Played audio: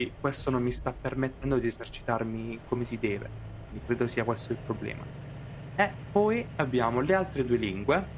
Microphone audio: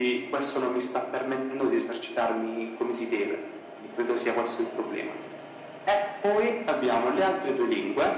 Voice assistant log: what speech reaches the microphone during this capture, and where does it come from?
echo only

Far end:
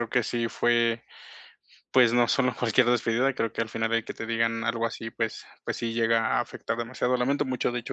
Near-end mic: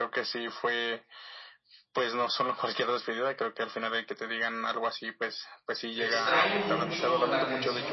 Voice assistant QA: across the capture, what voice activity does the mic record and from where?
both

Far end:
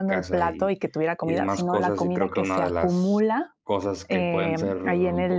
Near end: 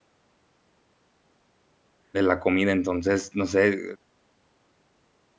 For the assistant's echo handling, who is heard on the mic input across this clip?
user only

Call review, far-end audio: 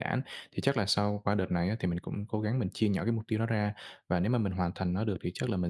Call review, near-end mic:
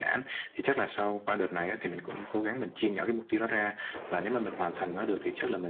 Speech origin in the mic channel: echo only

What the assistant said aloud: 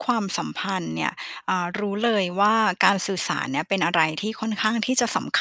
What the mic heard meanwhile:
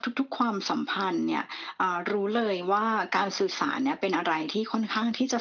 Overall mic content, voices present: echo only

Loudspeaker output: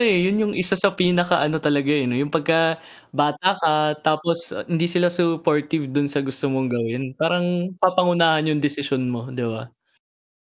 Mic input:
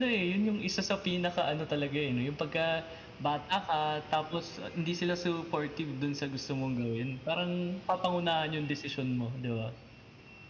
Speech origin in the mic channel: echo only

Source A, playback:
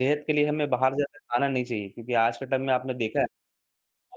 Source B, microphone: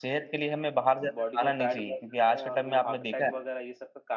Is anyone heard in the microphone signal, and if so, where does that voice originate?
both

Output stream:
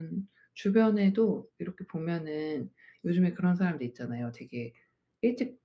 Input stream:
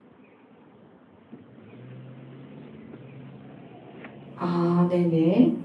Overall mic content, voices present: user only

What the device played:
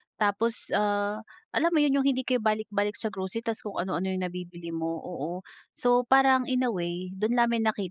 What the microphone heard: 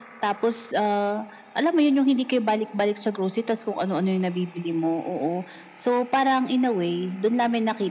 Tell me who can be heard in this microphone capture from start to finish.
echo only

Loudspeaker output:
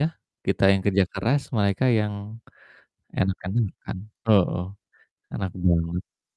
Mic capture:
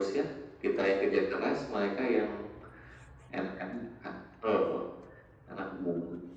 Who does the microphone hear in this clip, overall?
echo only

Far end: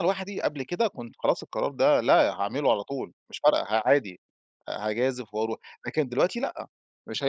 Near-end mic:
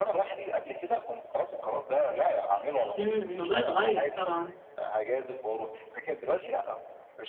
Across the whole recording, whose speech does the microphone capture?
both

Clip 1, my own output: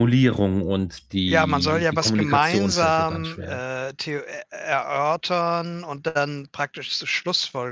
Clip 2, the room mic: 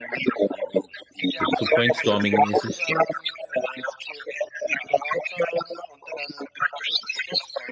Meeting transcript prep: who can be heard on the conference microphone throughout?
both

